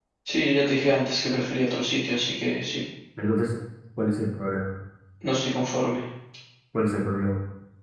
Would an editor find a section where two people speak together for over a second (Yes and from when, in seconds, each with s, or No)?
No